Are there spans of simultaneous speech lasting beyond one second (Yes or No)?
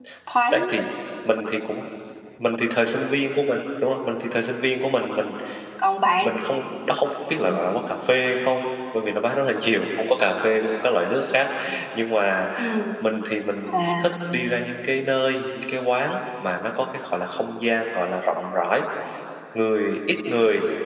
No